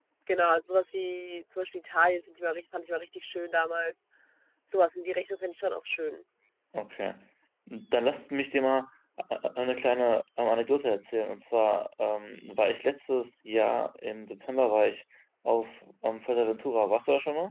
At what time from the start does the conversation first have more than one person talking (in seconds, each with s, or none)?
none